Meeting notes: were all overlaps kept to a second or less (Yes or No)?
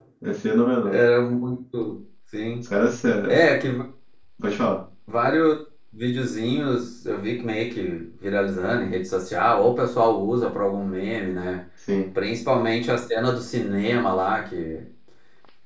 Yes